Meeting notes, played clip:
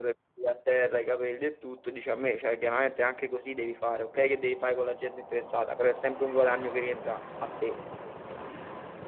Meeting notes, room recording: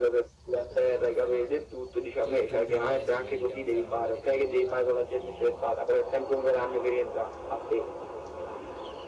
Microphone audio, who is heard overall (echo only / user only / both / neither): both